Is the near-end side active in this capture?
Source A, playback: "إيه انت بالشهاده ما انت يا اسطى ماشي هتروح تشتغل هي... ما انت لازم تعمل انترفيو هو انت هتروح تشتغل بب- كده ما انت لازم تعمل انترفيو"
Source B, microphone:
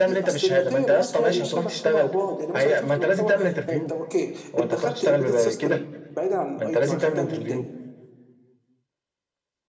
Yes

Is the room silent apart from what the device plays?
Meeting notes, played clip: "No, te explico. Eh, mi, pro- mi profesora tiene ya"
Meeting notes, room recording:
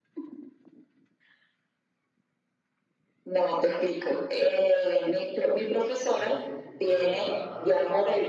No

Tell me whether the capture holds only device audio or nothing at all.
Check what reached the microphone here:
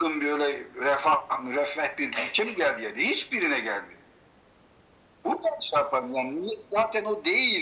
Yes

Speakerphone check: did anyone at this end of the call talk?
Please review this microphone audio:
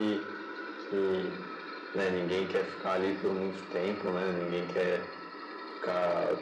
No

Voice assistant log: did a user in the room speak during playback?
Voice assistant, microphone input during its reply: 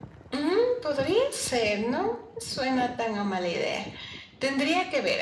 No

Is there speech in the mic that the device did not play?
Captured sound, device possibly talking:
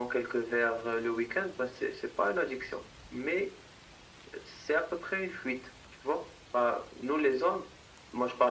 No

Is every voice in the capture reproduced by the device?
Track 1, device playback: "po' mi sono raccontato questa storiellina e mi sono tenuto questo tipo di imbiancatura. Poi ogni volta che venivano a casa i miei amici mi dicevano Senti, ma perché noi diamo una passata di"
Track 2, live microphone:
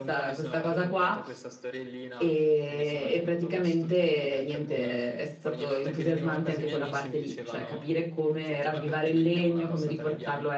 No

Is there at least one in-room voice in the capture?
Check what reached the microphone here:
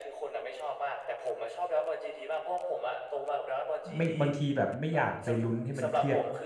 Yes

